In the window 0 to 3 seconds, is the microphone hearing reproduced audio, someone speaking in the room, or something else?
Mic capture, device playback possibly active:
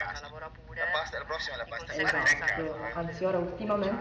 both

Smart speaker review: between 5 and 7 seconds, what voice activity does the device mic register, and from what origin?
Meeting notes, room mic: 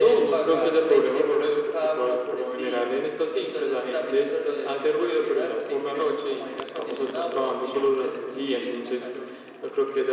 echo only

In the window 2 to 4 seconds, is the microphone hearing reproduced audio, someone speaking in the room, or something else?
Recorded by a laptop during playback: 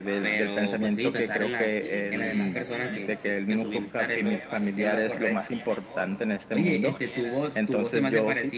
both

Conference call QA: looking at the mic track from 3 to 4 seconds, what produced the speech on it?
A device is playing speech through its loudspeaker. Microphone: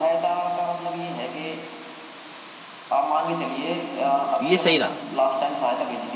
echo only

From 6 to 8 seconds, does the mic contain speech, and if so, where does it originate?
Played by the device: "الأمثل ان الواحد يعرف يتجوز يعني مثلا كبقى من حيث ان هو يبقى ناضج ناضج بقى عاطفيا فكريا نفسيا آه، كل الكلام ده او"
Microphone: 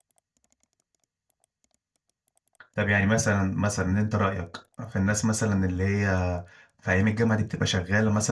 user only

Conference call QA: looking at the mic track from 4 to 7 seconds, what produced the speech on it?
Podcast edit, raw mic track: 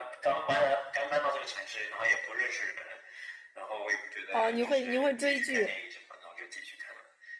both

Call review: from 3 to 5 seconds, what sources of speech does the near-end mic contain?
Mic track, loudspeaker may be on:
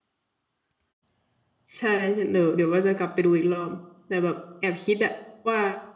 user only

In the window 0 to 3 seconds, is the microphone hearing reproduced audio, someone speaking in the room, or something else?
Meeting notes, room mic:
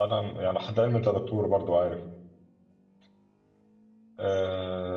user only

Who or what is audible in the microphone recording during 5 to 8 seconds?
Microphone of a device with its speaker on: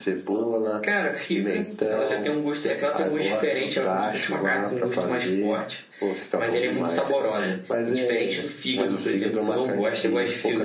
echo only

